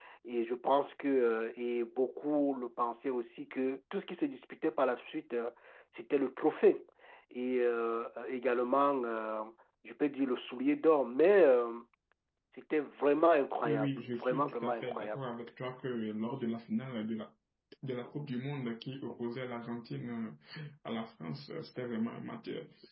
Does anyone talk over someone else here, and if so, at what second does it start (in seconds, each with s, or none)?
13.6 s